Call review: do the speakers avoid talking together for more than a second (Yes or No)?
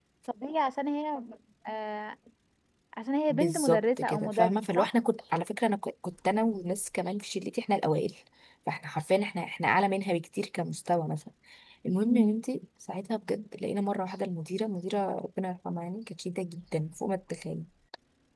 No